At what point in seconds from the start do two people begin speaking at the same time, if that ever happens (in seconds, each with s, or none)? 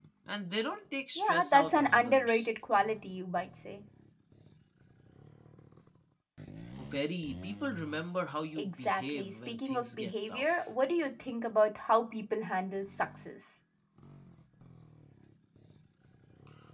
1.2 s